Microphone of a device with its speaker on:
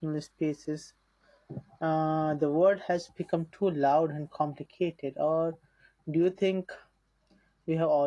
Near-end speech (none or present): present